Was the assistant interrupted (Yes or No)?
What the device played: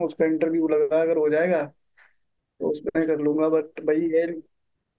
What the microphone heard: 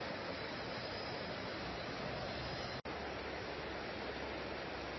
No